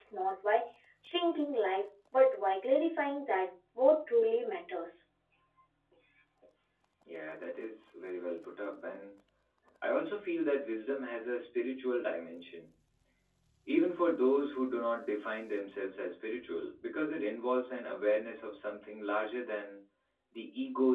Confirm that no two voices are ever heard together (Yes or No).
Yes